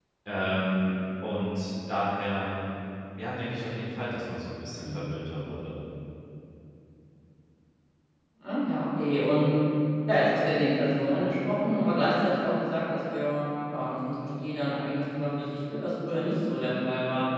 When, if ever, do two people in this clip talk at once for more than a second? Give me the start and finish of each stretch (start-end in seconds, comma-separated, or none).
none